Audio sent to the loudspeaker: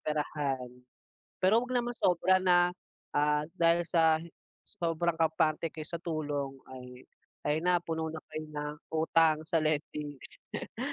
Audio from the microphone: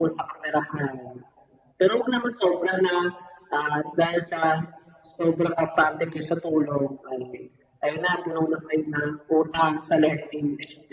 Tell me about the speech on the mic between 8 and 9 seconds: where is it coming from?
echo only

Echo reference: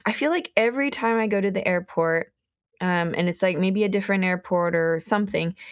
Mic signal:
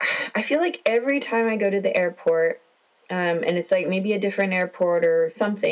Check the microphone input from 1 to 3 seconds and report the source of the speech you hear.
echo only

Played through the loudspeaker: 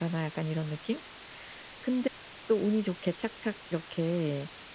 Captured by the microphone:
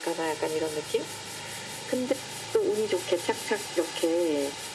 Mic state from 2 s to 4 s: echo only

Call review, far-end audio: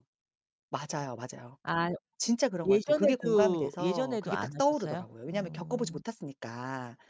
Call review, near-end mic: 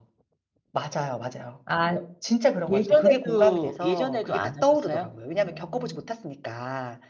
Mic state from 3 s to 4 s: echo only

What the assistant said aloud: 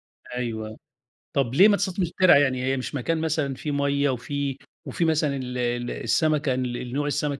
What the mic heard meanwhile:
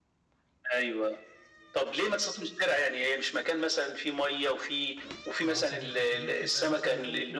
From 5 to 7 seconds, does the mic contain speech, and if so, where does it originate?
both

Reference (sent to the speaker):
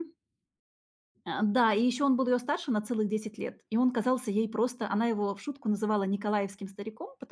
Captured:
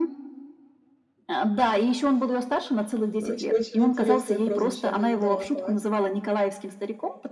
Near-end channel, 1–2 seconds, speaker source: echo only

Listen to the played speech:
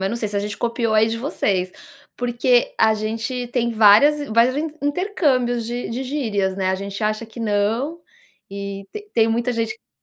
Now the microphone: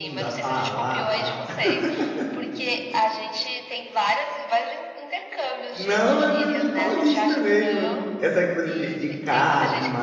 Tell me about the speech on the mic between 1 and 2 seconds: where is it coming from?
both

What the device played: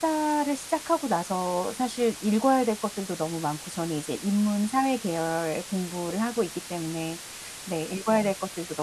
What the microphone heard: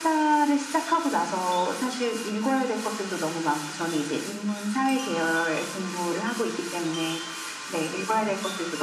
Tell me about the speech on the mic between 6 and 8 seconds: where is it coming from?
echo only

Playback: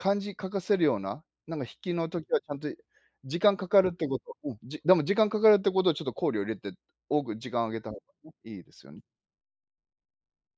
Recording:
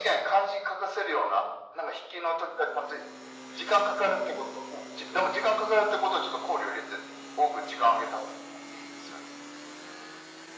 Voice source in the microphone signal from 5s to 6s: echo only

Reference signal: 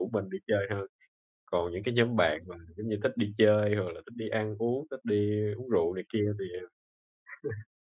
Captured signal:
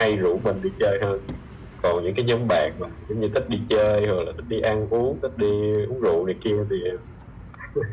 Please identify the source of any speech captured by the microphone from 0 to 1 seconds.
echo only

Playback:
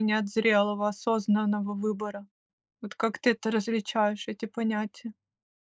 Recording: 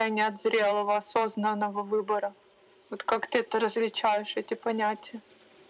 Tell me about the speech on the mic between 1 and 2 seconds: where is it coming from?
echo only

